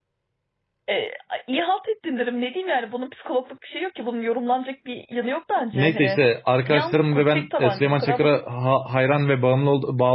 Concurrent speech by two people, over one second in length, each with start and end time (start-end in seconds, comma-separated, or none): 6.7-8.4